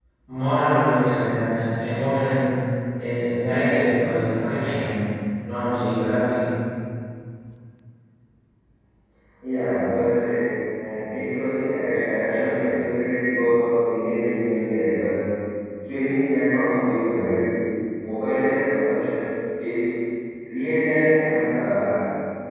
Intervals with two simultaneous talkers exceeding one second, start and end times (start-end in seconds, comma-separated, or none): none